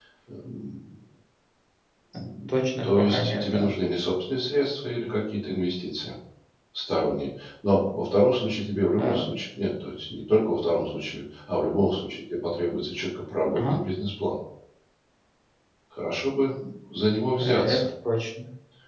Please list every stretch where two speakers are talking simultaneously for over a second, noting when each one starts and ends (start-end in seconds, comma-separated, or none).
2.5-3.7